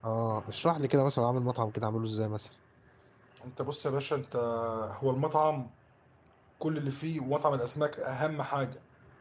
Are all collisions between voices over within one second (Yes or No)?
Yes